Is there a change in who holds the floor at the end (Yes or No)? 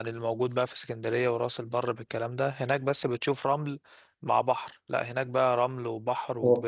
Yes